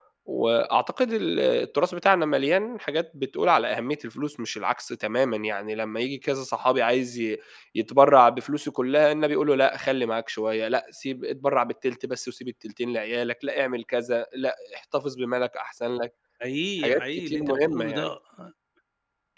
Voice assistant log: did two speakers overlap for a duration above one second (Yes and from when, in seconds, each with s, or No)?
Yes, from 16.8 s